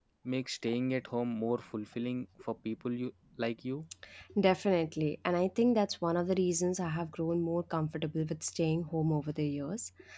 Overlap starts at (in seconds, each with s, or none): none